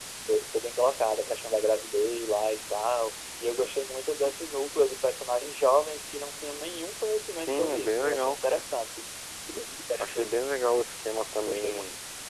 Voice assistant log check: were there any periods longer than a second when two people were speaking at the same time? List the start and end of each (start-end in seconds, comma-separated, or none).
7.4-8.7